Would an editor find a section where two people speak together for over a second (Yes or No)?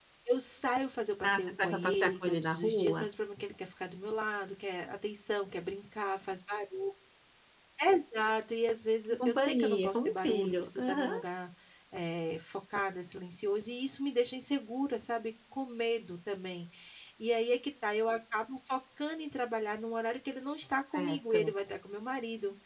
Yes